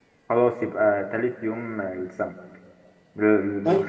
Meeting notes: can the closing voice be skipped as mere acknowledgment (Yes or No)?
Yes